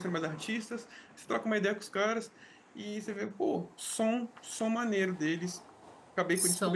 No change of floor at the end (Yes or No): Yes